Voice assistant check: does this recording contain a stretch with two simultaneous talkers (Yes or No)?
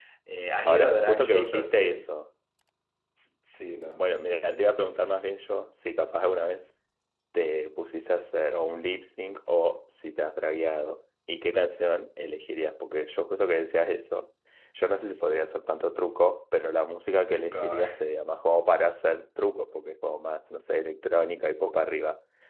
Yes